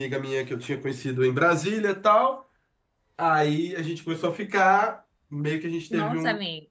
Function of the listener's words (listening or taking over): listening